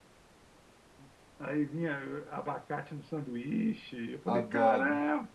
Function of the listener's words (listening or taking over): taking over